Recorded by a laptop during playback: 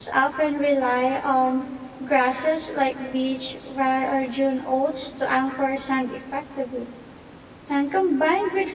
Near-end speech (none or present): present